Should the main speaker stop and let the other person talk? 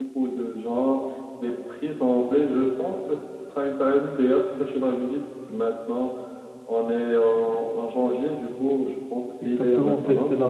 Yes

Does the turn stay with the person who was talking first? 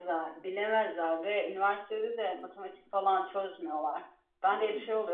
Yes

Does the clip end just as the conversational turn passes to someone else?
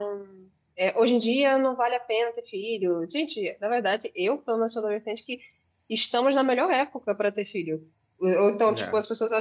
No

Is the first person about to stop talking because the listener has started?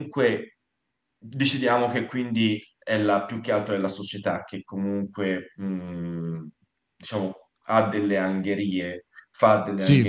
No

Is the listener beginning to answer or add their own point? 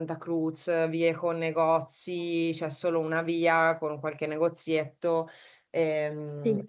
No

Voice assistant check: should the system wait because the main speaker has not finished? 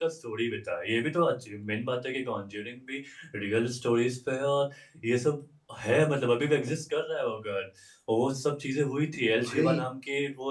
Yes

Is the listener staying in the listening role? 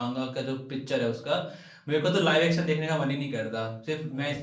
No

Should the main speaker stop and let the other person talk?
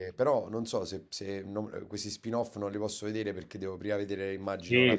Yes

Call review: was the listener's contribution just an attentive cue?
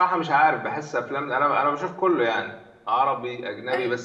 Yes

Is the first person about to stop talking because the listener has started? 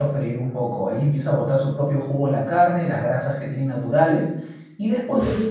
No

